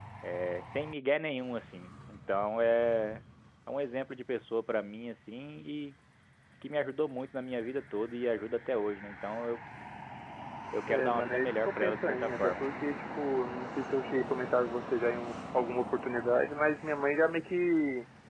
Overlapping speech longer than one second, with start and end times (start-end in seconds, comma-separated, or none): 10.9-12.7